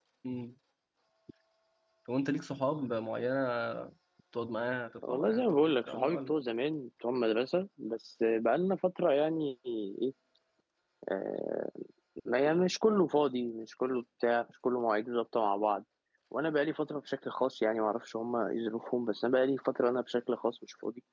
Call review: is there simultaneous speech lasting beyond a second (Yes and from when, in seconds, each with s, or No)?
Yes, from 5.1 s